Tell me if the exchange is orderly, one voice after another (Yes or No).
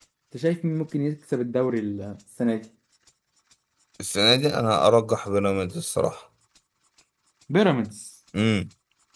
Yes